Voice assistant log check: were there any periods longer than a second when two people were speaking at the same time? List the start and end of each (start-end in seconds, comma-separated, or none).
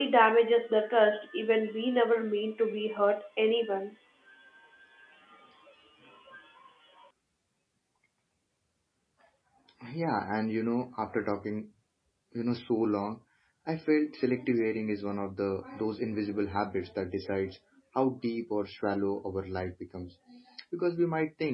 none